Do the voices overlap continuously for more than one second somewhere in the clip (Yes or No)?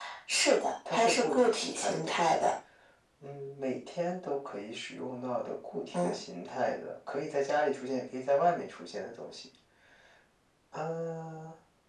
Yes